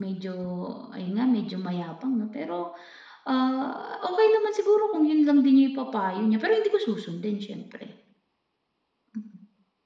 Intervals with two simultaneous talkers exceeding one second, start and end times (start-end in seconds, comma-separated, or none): none